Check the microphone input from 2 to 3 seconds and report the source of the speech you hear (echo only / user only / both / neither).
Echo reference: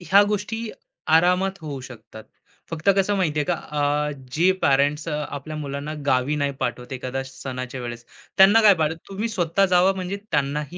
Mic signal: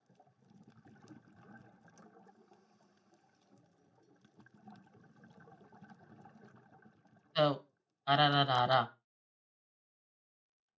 neither